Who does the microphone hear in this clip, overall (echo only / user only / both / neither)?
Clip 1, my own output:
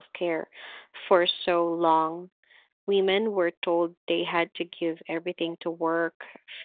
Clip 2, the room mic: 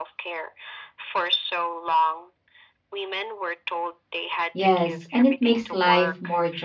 both